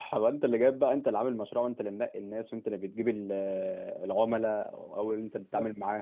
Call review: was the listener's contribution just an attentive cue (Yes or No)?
Yes